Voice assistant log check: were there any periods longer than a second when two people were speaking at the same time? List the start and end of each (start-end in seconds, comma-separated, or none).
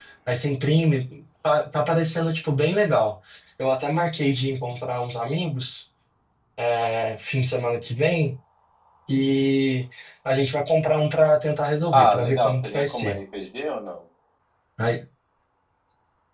11.9-13.2